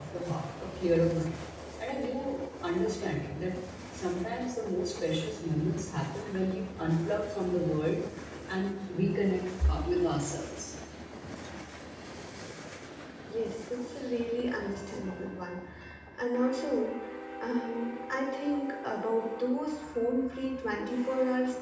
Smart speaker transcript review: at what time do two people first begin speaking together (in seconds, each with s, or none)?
none